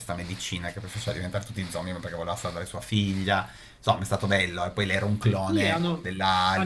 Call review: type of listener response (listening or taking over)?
taking over